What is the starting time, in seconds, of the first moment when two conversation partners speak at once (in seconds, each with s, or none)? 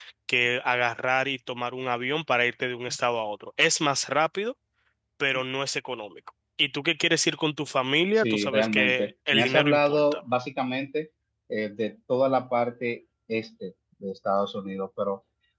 8.2 s